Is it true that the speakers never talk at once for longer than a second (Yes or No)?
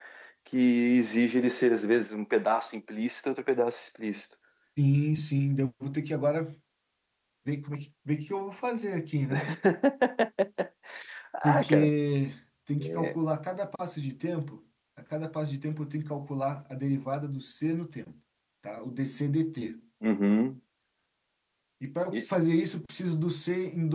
Yes